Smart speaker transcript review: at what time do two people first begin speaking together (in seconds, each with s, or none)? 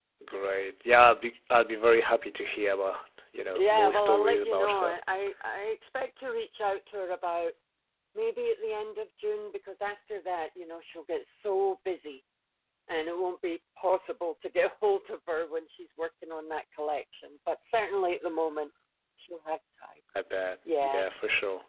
3.5 s